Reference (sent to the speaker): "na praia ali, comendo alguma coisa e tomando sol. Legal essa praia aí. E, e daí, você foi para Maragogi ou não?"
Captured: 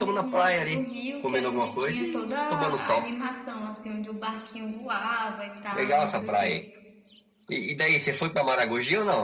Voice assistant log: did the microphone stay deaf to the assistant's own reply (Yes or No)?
No